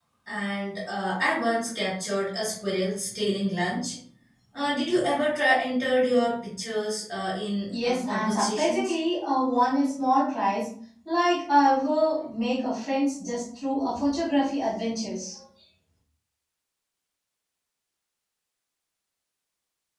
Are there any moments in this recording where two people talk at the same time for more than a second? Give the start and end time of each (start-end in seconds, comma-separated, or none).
7.7-8.9